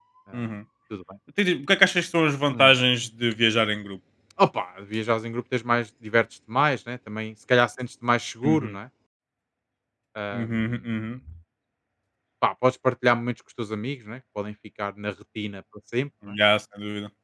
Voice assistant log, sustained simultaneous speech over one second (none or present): none